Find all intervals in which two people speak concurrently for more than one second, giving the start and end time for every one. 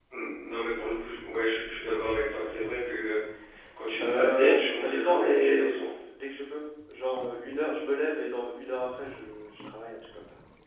4.0-5.8

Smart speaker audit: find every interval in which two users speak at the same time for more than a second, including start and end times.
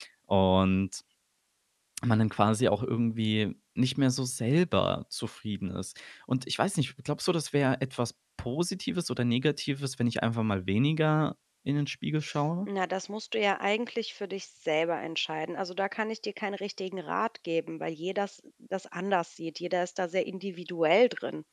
none

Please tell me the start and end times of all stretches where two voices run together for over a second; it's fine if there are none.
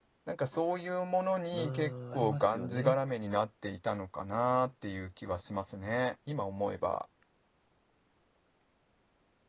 1.5-3.0

